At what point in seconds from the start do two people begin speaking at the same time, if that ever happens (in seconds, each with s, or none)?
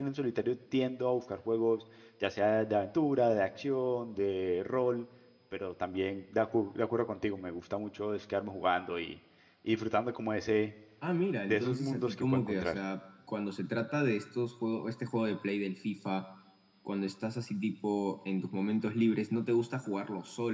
11.5 s